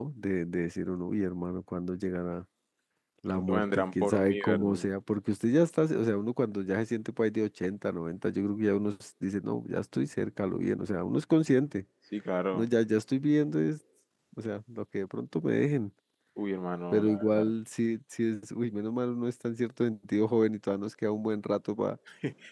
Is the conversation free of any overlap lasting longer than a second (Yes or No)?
No